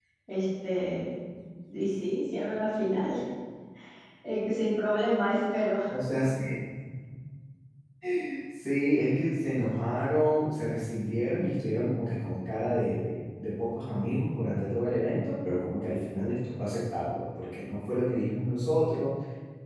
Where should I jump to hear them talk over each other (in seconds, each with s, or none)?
none